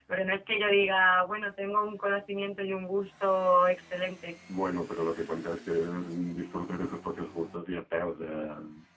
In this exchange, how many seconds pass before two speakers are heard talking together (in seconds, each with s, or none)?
none